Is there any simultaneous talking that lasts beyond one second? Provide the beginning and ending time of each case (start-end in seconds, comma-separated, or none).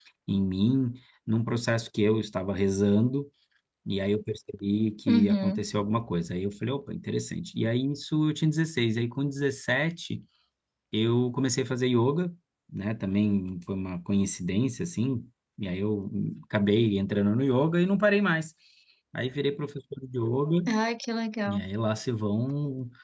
none